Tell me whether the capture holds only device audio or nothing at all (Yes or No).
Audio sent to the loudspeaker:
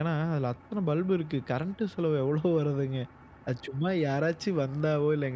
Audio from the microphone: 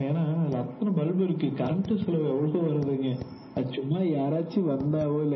Yes